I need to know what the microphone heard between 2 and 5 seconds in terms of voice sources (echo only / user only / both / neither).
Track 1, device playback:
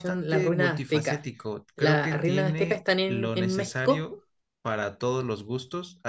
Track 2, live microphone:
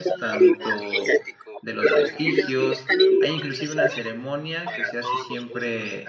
both